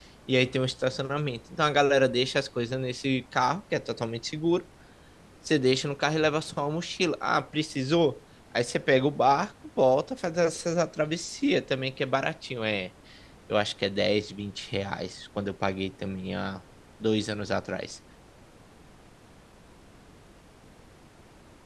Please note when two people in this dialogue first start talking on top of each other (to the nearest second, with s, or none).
none